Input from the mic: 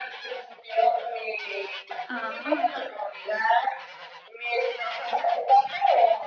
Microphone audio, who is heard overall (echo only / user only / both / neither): both